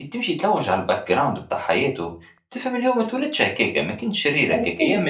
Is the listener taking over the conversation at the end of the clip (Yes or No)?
No